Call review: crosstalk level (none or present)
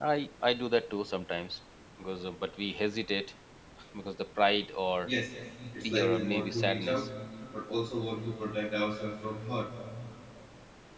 present